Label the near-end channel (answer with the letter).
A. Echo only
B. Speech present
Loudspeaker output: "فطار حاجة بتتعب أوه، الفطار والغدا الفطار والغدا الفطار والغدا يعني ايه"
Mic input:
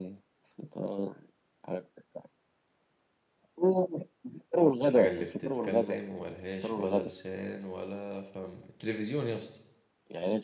B